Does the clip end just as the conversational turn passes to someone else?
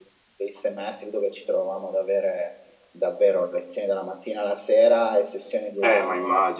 Yes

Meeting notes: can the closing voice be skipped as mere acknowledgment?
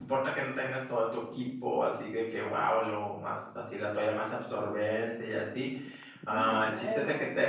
Yes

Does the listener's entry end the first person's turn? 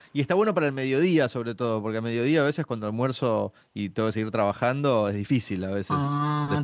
Yes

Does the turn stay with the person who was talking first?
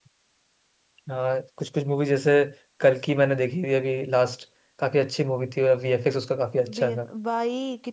No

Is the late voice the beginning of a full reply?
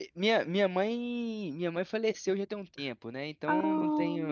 No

